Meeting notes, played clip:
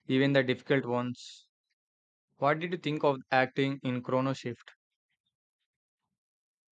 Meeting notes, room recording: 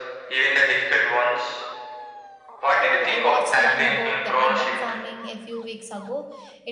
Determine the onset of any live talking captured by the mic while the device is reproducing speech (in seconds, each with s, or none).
2.8 s